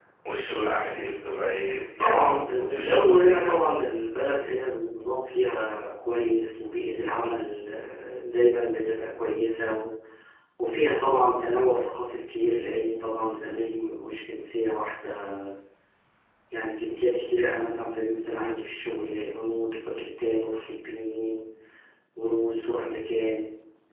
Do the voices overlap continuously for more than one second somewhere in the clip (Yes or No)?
Yes